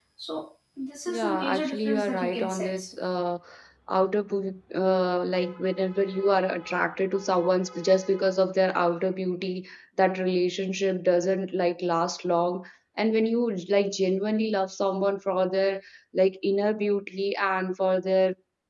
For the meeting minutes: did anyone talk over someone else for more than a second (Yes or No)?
Yes